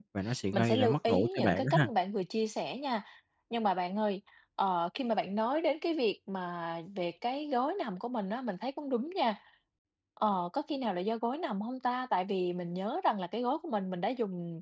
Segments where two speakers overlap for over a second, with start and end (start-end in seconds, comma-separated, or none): 0.5-1.9